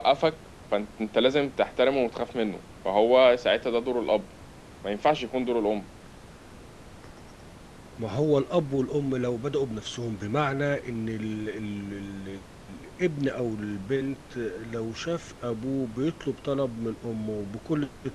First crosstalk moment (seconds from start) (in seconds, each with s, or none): none